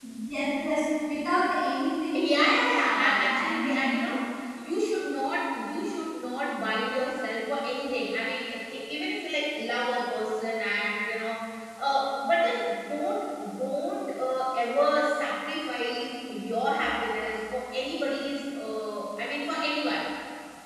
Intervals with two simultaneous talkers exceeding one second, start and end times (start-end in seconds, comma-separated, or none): 2.1-4.0